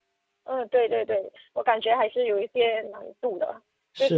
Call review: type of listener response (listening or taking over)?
listening